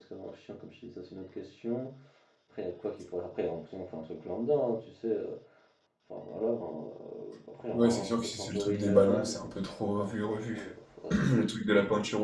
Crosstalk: present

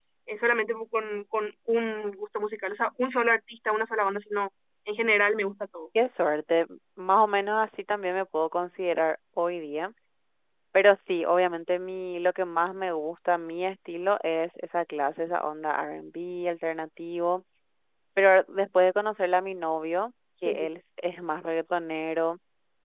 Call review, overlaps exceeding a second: none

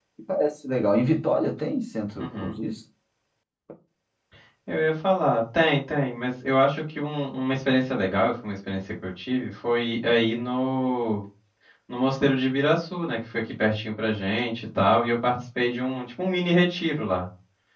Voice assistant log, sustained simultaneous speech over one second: none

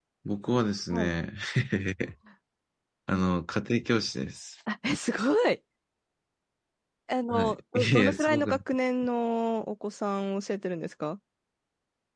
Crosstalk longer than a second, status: present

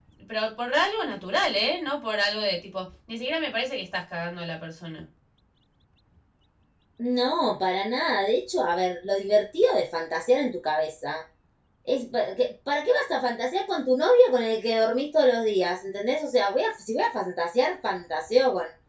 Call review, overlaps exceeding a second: none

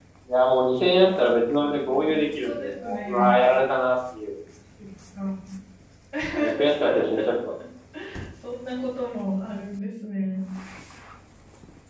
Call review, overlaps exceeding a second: present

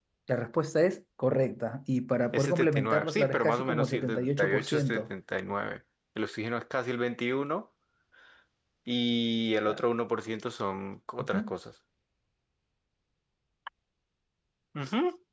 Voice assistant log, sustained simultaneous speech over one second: present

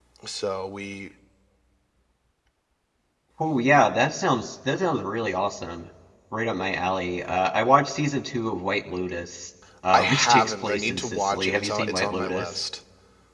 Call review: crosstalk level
present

